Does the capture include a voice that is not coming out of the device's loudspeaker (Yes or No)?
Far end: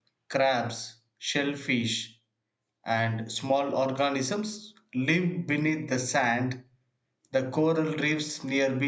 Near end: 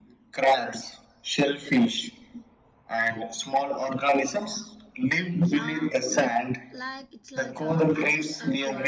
Yes